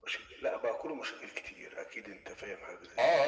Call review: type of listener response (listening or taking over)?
taking over